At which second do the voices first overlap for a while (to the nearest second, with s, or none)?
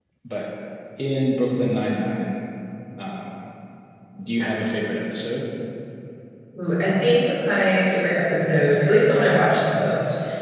none